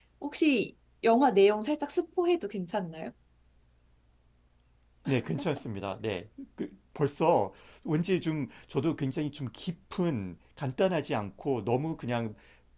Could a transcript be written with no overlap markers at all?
Yes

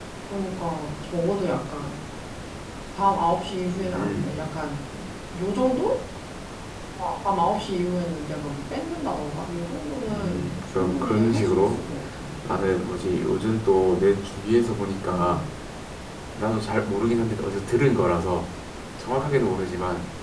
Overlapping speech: Yes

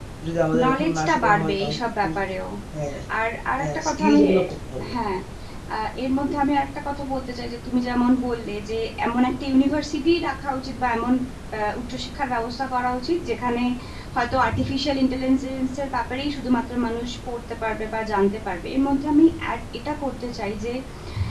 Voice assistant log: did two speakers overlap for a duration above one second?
Yes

